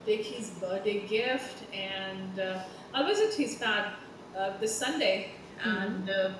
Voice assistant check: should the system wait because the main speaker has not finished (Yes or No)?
Yes